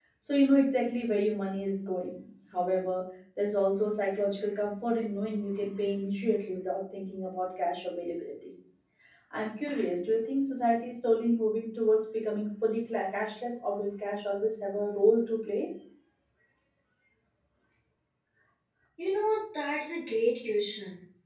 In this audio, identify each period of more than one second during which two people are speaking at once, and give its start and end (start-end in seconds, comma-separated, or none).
none